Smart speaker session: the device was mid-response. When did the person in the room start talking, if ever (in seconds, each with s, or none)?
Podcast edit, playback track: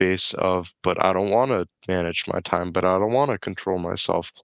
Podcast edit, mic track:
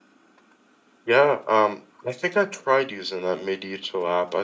1.1 s